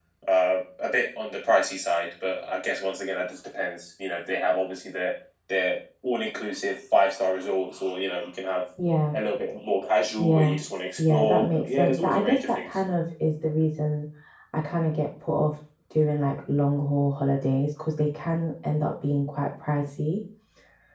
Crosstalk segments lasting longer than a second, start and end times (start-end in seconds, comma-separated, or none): 11.0-12.7